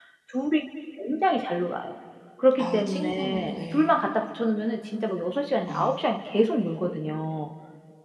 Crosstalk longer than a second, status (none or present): present